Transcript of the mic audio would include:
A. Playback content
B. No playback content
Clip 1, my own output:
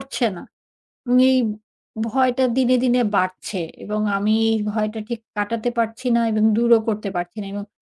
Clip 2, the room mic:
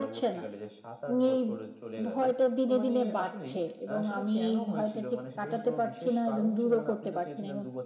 A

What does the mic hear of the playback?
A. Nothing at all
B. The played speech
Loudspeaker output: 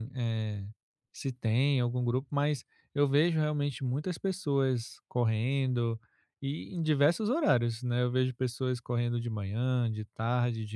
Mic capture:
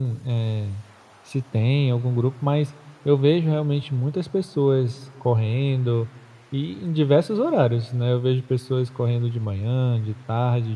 B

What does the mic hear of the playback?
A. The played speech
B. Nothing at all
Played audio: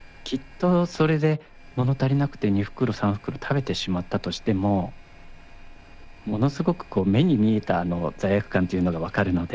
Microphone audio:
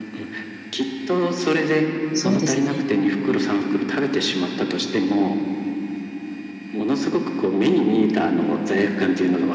A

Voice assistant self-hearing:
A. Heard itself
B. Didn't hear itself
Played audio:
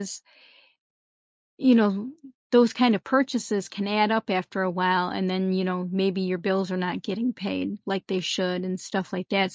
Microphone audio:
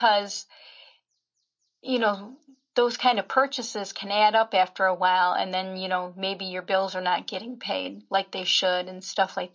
A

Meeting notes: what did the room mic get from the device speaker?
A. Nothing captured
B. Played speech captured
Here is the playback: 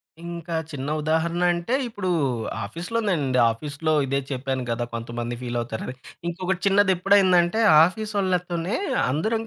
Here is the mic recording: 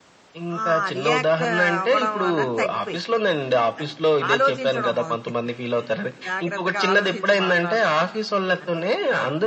B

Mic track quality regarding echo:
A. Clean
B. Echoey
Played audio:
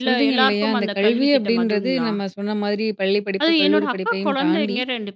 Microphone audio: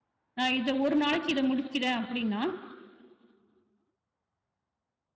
A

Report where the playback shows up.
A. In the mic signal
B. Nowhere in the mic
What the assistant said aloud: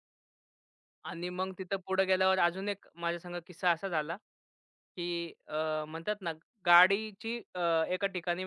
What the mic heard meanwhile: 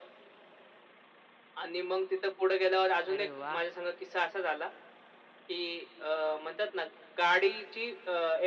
A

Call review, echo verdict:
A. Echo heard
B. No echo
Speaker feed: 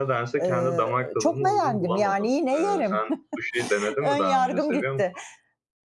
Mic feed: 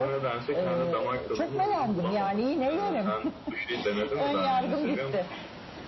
A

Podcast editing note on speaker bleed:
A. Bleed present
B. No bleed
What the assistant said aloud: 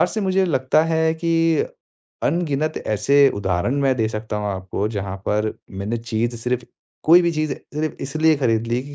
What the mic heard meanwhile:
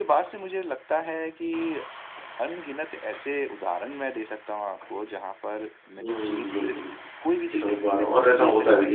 A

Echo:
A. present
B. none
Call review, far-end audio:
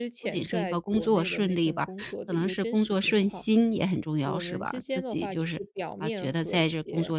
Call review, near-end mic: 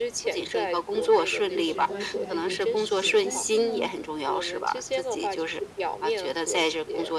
A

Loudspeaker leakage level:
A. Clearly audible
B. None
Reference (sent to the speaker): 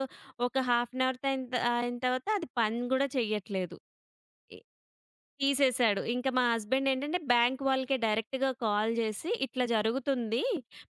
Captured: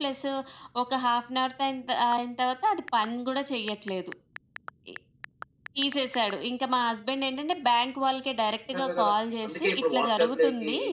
A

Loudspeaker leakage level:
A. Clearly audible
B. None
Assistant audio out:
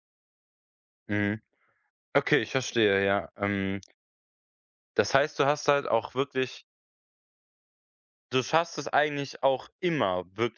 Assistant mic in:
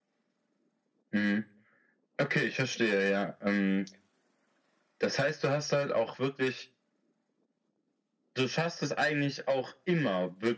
A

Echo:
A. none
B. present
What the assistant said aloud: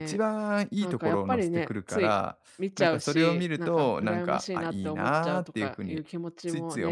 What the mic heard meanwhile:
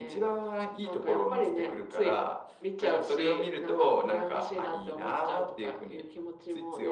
B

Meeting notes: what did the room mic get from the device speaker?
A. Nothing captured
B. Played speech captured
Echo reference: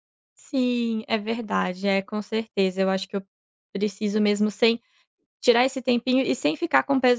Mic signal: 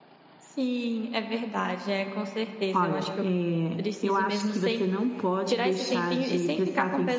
B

